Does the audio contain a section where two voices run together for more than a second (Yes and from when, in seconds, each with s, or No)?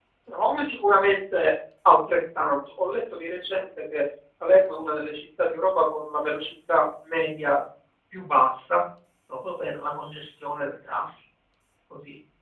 No